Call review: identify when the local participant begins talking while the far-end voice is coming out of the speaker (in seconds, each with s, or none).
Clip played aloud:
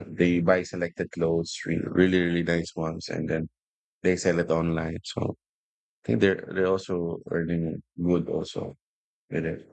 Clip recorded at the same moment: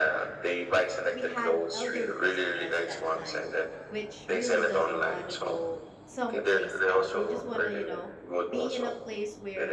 1.1 s